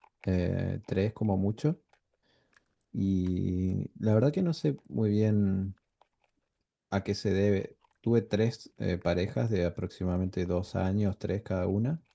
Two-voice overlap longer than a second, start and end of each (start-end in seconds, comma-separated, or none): none